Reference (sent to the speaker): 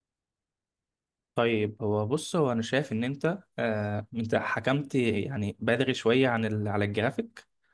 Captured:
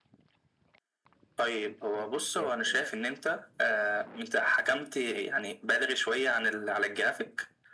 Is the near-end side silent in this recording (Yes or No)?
No